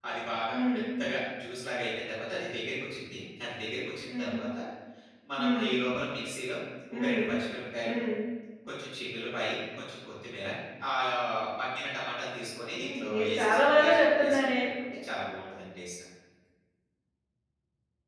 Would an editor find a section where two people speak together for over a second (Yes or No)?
Yes